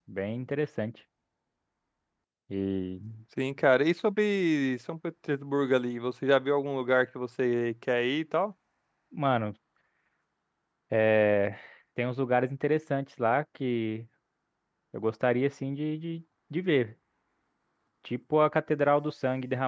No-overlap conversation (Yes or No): Yes